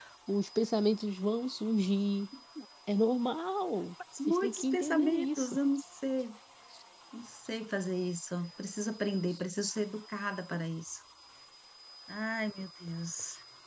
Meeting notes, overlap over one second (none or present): present